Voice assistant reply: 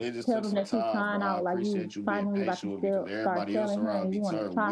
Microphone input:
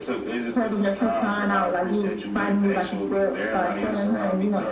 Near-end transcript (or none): none